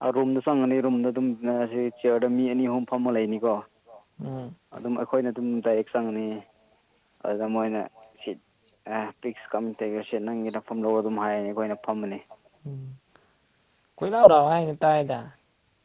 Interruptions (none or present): none